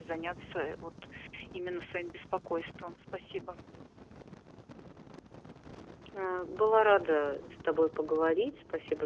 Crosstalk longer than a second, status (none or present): none